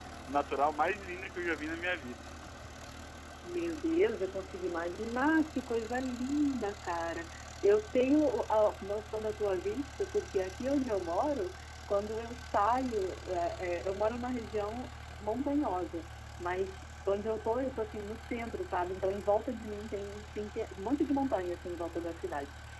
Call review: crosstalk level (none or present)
none